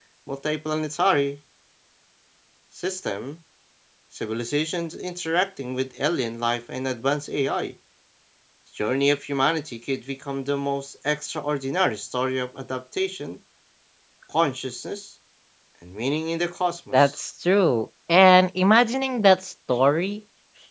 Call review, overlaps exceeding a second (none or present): none